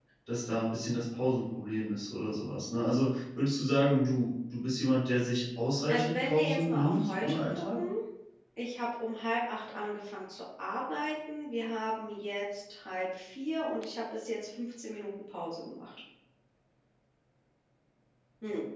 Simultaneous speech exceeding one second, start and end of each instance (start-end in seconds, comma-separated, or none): 5.9-7.8